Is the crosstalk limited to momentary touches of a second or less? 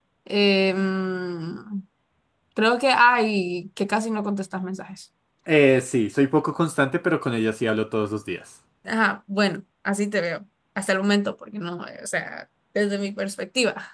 Yes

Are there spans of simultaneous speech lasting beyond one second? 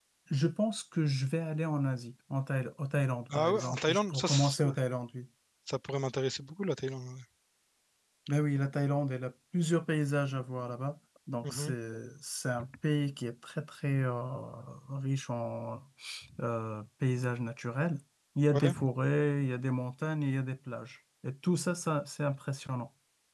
Yes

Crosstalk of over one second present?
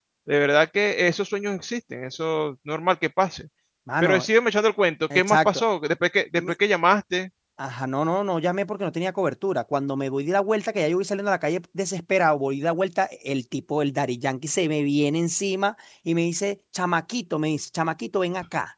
No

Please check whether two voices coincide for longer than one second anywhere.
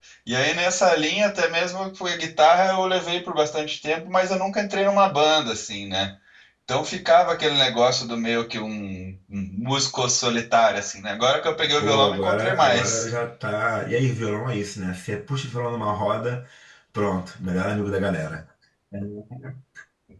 Yes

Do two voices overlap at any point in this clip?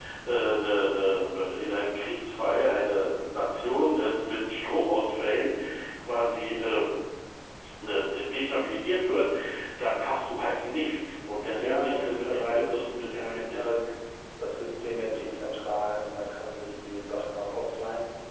Yes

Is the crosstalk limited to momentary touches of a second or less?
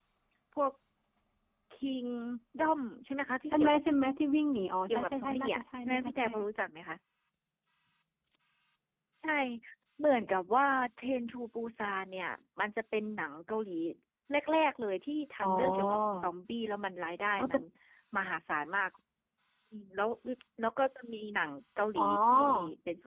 No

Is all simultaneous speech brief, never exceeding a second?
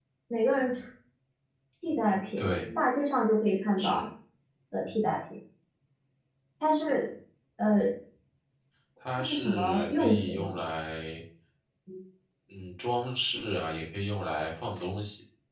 No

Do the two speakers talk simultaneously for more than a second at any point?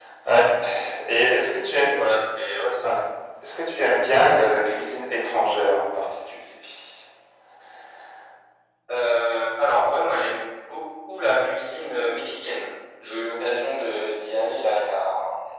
No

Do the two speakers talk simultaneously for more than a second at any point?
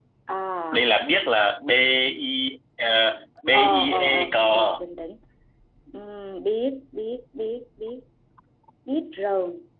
Yes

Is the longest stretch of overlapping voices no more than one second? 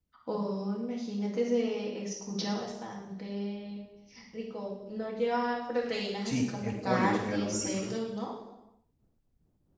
No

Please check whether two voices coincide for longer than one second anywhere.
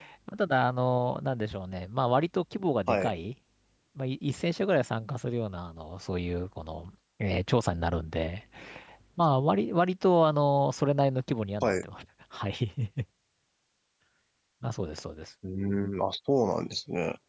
No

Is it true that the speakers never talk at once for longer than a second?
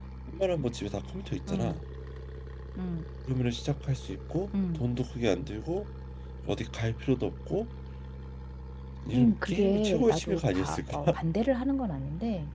No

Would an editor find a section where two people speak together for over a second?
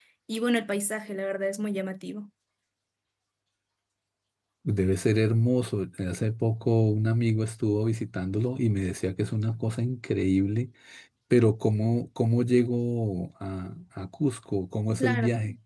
No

